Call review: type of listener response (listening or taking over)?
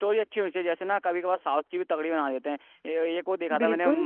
listening